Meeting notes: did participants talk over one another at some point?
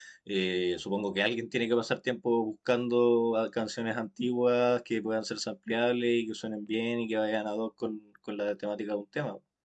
No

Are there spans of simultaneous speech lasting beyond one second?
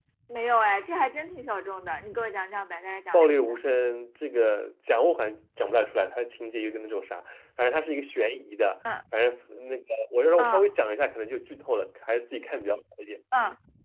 No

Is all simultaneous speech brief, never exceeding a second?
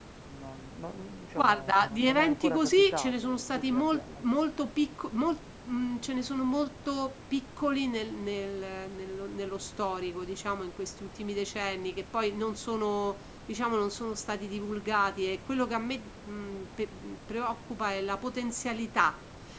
No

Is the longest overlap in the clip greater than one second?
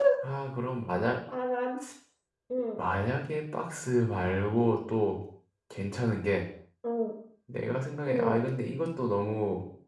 No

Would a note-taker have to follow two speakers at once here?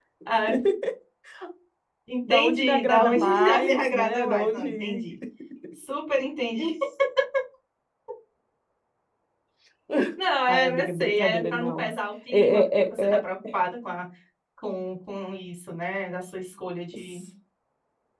Yes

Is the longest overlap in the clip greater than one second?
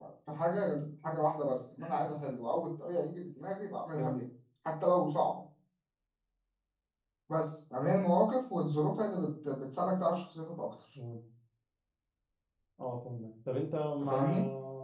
No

